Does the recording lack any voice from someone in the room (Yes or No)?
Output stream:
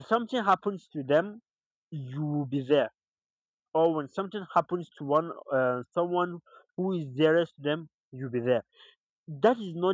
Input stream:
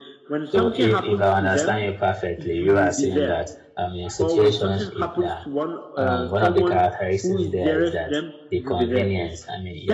No